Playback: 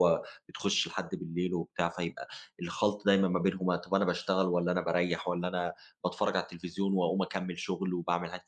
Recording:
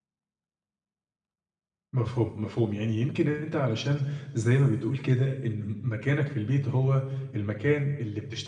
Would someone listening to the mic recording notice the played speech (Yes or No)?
No